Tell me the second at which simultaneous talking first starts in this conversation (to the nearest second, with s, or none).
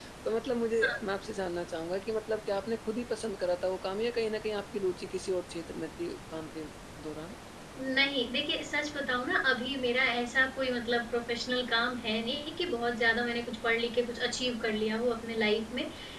none